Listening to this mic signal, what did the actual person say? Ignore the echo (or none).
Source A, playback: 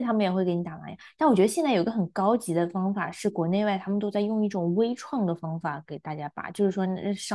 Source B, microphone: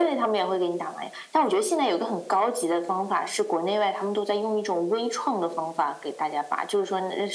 none